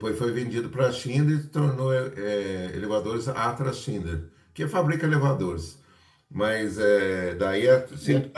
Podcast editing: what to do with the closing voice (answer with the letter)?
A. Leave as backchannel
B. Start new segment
A